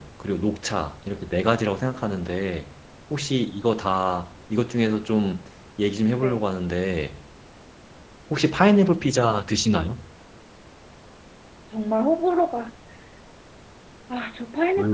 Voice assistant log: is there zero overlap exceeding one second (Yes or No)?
Yes